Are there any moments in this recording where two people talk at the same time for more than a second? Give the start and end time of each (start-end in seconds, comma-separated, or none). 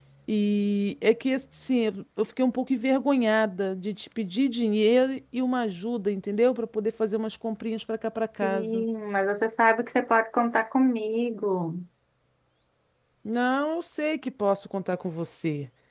none